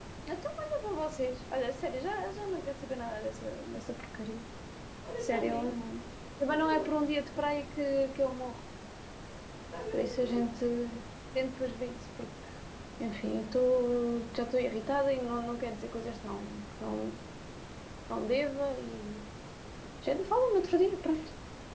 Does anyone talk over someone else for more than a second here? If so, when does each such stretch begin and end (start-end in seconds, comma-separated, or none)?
none